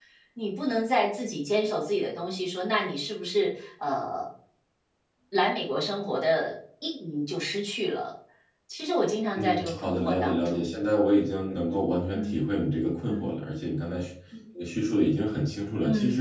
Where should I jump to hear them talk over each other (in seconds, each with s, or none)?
9.3 s